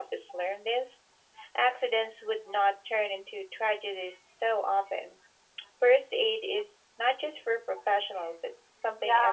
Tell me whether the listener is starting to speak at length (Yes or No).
Yes